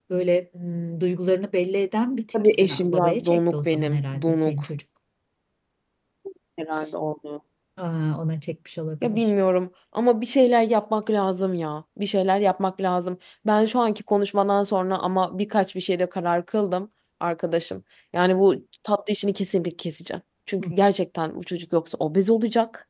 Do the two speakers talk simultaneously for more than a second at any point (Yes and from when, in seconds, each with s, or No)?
Yes, from 2.3 s